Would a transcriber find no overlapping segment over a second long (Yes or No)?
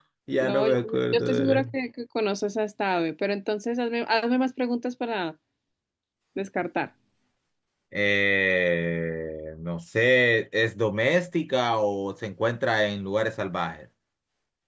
No